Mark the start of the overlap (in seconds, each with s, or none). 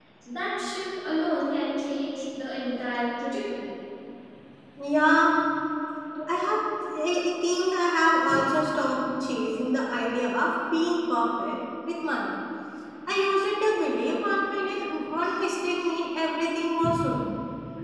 none